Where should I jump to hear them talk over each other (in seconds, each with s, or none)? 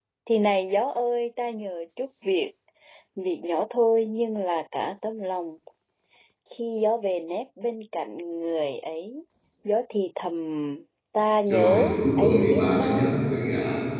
11.5 s